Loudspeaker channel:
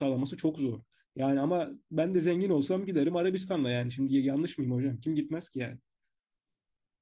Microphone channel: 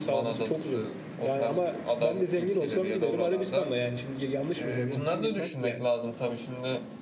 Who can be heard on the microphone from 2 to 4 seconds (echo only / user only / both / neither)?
both